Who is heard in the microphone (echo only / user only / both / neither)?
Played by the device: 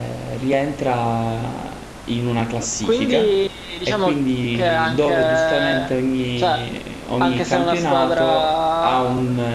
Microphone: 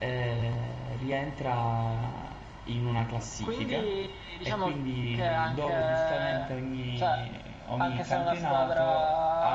echo only